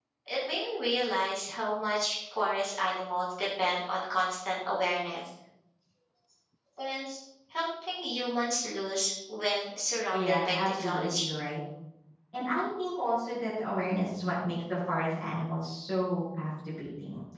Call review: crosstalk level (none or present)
present